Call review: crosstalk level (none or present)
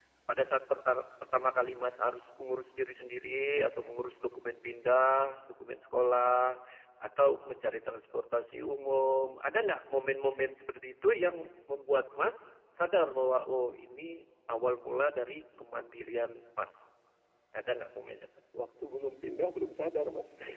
none